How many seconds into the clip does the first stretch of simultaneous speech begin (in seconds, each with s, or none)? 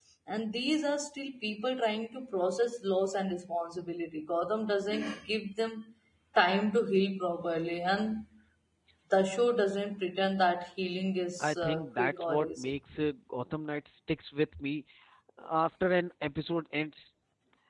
11.4 s